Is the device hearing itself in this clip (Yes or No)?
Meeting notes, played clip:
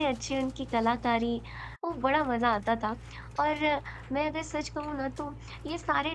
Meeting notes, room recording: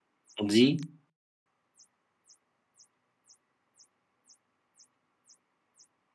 No